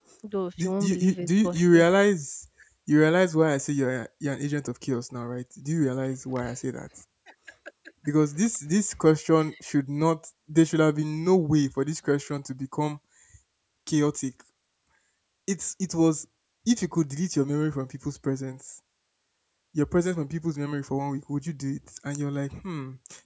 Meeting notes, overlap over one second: present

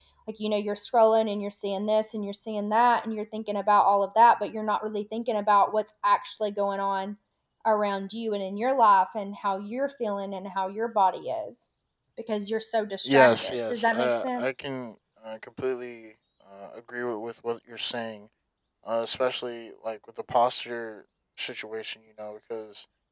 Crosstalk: present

